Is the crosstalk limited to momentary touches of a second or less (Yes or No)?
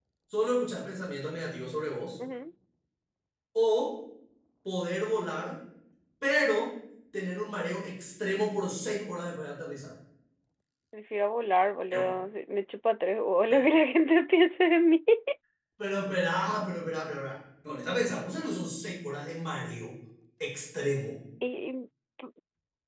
Yes